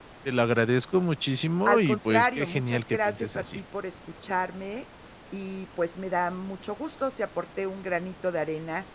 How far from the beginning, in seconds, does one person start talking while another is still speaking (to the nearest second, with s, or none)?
2 s